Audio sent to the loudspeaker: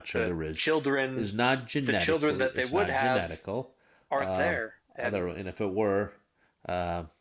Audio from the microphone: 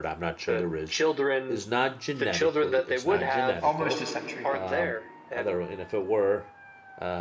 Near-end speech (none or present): present